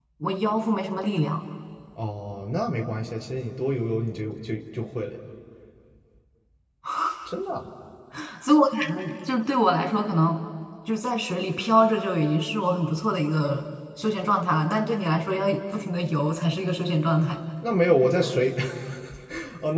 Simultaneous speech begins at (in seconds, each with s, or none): none